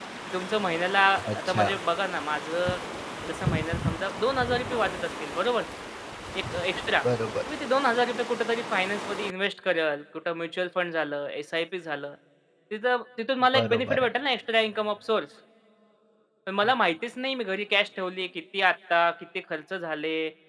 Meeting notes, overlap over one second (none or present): none